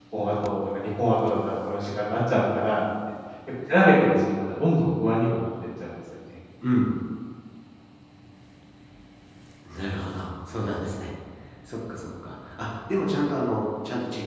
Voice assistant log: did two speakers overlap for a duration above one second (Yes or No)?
No